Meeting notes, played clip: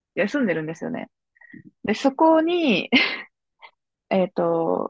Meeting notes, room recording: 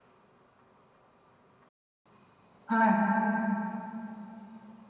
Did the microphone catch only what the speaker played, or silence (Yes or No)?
No